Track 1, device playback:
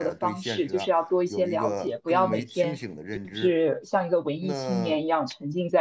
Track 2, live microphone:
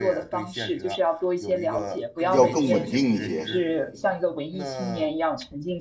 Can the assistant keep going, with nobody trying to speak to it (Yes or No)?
No